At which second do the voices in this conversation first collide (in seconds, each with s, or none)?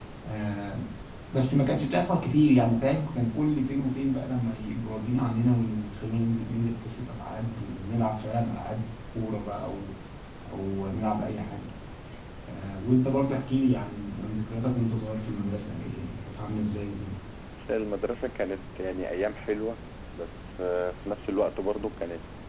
none